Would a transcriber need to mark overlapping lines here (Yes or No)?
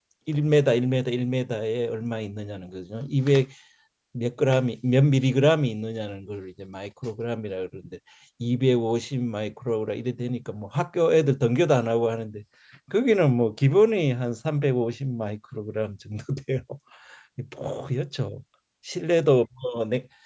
No